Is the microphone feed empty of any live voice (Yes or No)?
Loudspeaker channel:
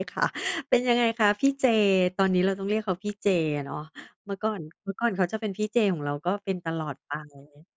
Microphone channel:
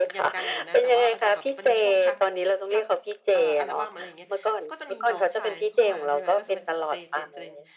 No